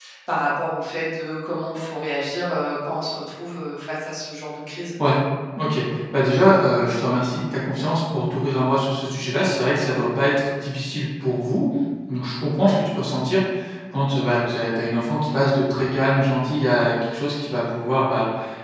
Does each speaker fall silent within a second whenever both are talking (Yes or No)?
Yes